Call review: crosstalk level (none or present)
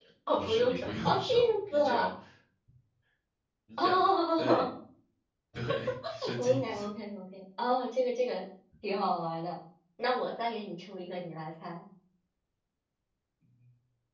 present